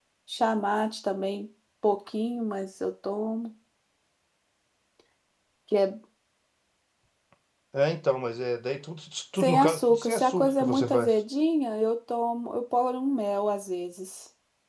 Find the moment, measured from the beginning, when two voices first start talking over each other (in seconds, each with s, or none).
9.4 s